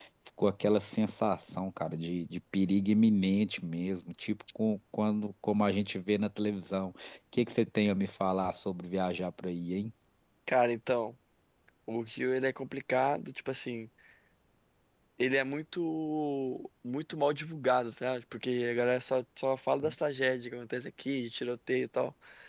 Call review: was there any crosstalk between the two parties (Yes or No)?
No